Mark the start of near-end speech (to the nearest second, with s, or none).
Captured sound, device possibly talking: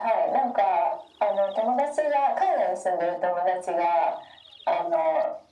none